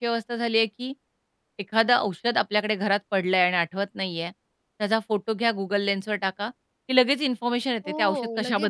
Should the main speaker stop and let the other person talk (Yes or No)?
Yes